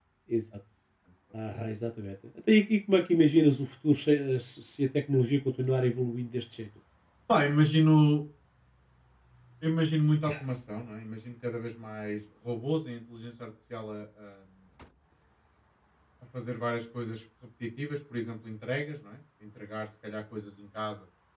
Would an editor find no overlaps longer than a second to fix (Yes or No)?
Yes